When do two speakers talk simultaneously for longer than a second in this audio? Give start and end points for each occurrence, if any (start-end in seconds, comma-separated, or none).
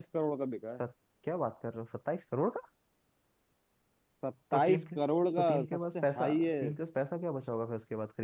5.4-6.7